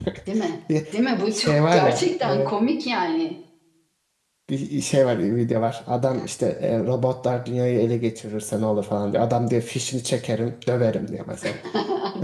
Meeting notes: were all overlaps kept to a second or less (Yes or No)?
No